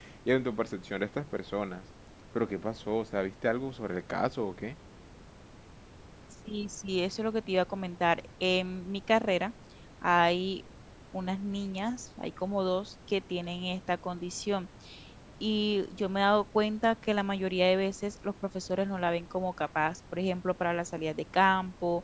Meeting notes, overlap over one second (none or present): none